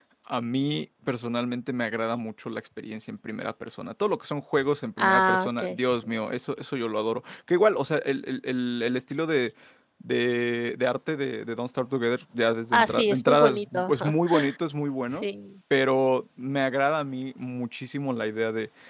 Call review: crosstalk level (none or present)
present